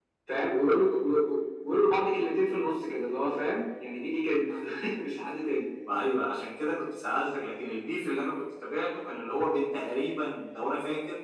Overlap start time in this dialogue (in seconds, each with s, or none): none